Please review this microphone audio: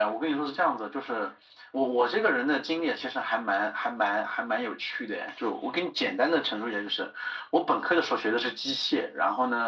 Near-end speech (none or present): none